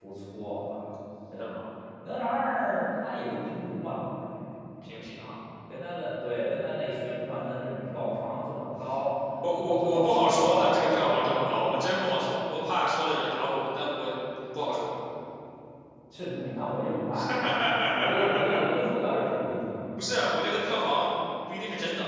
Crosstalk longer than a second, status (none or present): present